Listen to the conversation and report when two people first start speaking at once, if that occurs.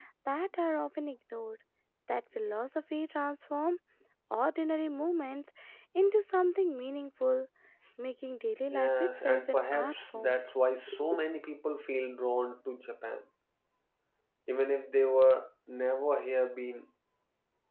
9 s

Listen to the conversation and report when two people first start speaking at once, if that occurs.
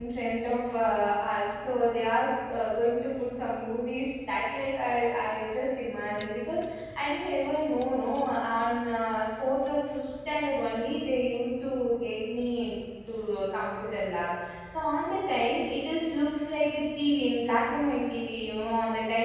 none

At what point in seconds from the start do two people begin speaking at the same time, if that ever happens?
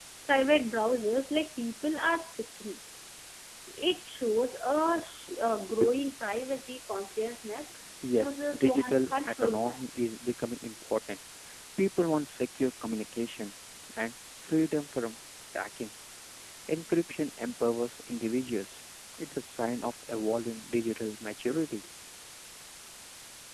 8 s

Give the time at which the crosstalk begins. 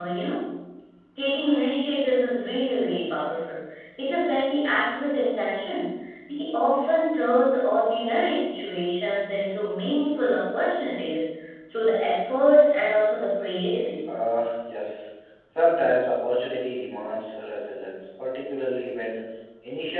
none

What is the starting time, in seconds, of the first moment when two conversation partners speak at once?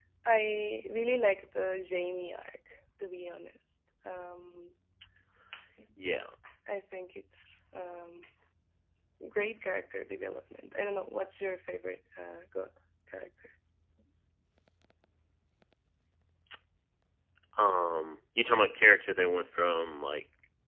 none

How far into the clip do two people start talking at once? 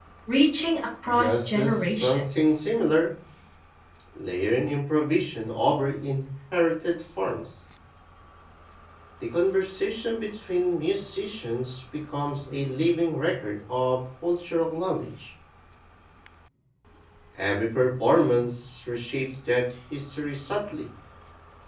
1 s

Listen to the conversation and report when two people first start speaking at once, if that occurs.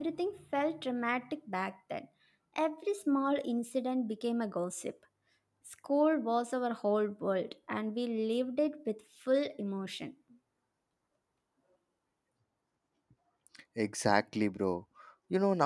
none

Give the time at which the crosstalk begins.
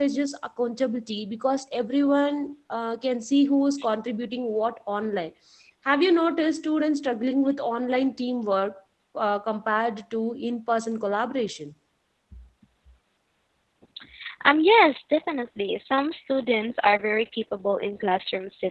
none

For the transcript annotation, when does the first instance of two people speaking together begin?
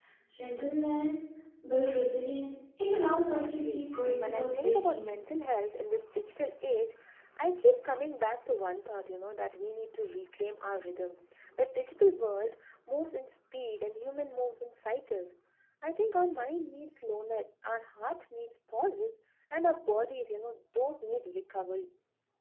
3 s

